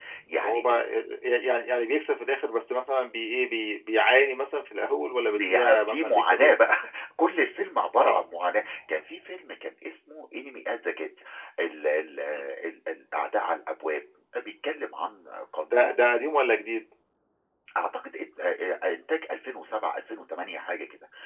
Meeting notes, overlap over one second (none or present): present